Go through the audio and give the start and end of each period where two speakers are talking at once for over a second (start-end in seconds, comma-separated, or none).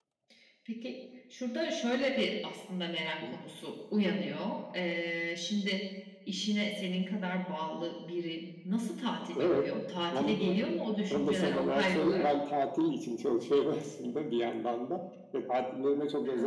11.1-12.4